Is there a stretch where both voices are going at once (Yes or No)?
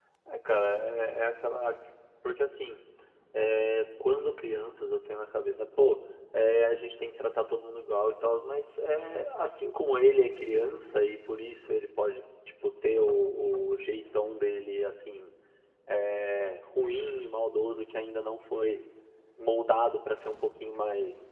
No